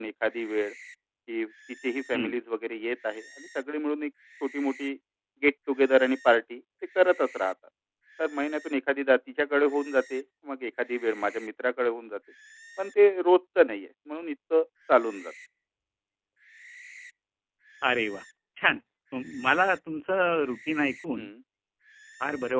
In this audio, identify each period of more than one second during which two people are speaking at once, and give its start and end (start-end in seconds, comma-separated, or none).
none